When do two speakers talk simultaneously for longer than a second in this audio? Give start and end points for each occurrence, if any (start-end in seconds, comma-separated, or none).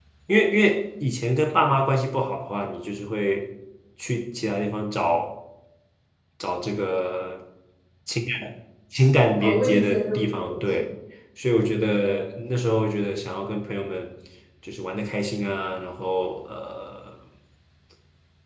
9.4-10.8